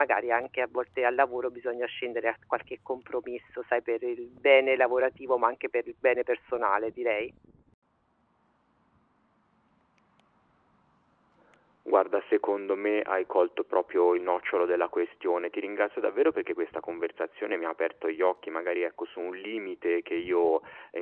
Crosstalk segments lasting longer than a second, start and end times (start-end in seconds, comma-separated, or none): none